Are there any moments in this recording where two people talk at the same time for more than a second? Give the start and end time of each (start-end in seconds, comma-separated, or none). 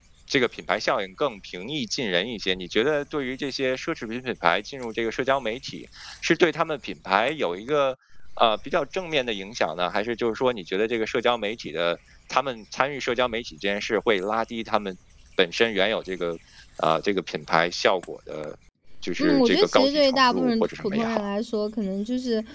19.2-21.1